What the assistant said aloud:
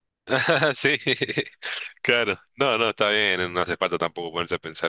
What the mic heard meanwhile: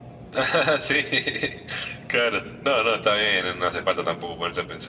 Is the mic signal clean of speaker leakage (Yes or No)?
No